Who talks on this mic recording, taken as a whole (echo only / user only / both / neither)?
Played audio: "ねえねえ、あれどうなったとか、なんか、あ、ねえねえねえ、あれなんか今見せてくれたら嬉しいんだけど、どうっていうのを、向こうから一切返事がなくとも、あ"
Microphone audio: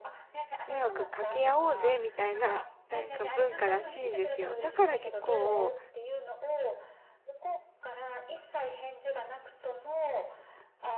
both